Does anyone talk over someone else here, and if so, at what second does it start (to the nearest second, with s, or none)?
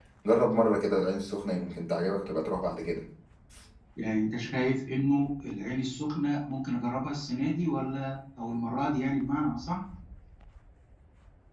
none